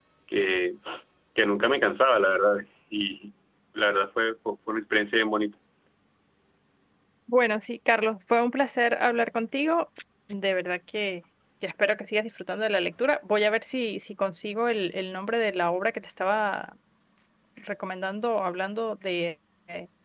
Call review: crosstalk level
none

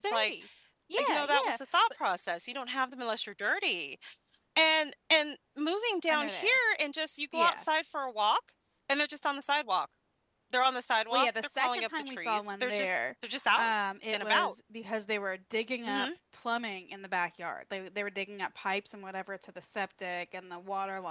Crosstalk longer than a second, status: present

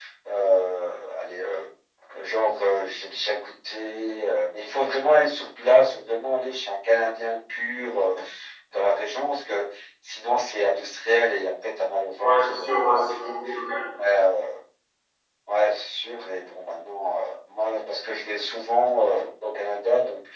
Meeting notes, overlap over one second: present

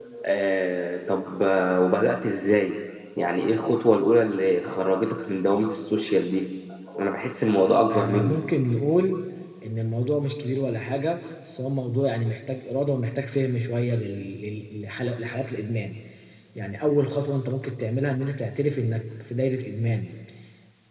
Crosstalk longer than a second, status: none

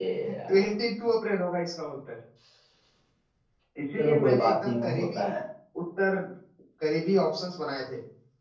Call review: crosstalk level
present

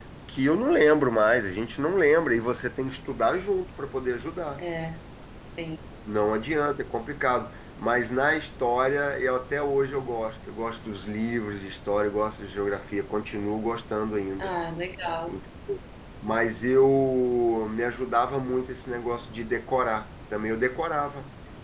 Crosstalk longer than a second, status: none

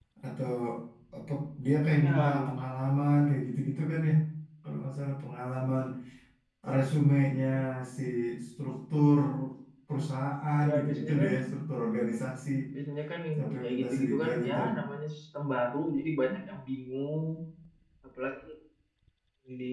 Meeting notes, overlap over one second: present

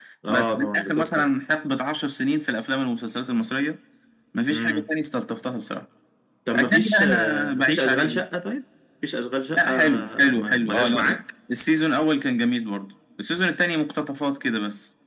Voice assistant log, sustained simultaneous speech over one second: present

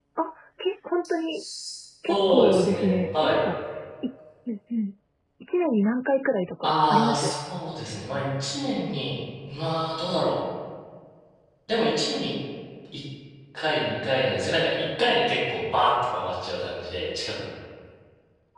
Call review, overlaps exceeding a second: present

